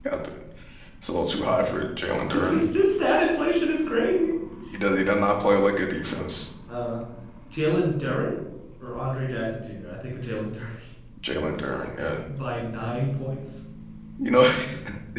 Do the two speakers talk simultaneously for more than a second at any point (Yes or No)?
No